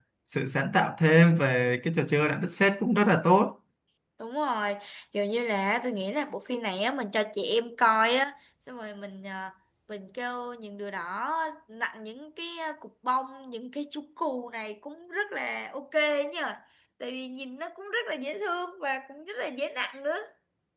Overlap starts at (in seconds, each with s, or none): none